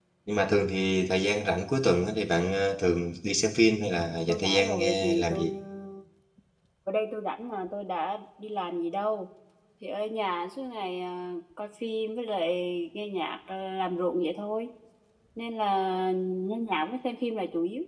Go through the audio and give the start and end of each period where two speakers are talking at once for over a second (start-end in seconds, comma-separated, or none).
4.3-5.5